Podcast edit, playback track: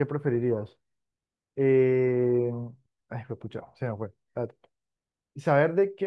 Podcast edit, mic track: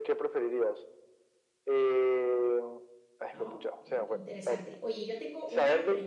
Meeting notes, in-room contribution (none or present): present